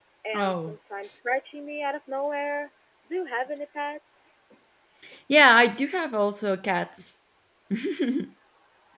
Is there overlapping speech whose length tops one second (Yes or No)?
No